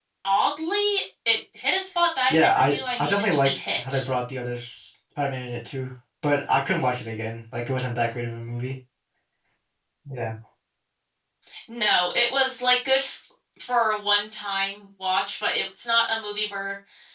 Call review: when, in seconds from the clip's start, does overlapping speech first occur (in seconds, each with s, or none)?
2.3 s